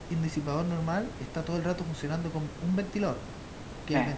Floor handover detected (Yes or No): No